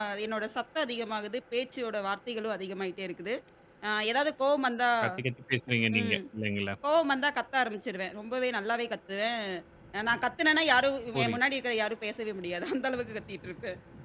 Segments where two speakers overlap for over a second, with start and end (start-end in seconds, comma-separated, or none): none